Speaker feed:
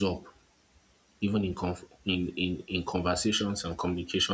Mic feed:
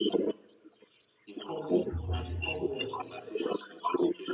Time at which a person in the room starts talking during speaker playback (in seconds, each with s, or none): 1.4 s